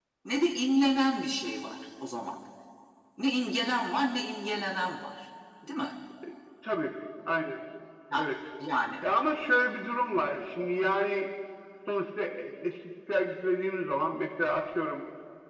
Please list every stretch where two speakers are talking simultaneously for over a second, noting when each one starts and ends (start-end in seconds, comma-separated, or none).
none